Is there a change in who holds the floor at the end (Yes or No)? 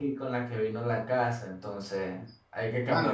Yes